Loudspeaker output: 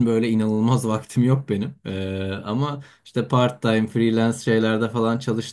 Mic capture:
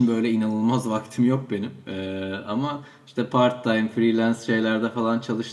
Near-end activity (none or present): none